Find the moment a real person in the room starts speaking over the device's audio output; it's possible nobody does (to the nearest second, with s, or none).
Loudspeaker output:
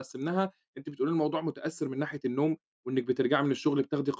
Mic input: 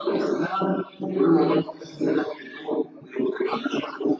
none